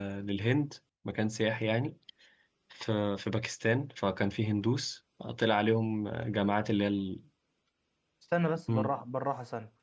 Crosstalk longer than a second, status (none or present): none